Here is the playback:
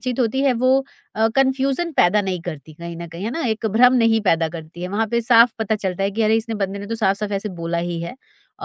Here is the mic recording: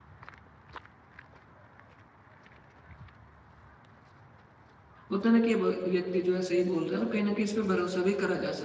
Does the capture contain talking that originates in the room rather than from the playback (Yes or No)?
Yes